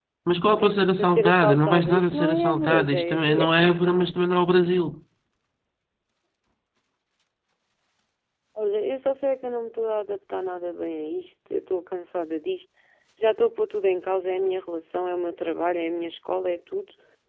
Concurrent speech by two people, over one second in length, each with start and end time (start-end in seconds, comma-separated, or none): 0.6-3.5